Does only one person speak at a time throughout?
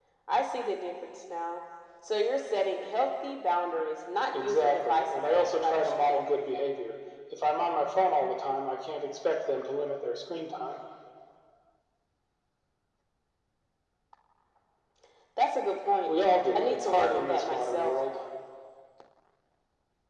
No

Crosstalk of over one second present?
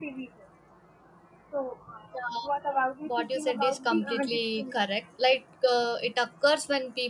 Yes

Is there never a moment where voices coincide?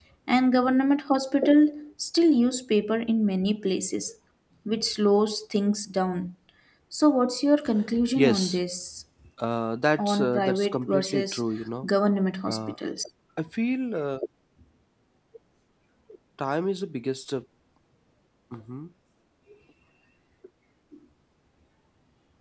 No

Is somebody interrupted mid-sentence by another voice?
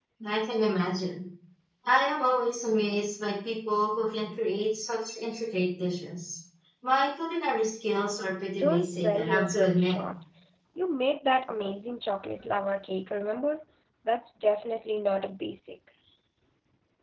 Yes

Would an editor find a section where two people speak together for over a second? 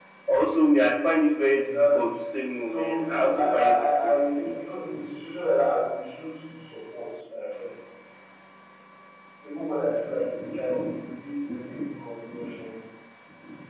Yes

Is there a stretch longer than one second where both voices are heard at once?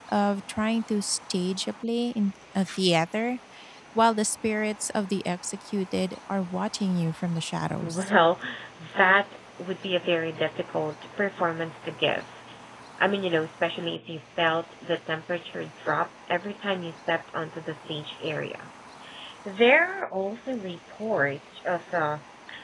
No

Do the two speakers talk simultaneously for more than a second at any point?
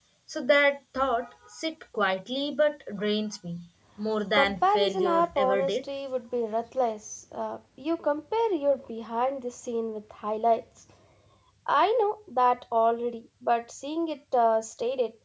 Yes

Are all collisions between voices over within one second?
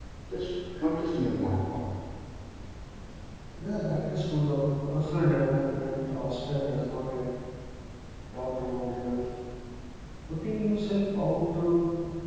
Yes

